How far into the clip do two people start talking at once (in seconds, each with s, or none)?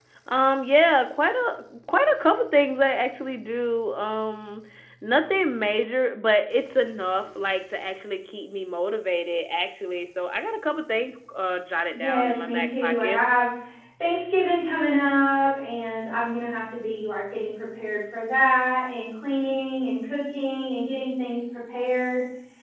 11.9 s